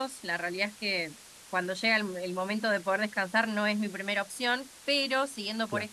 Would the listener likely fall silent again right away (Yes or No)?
Yes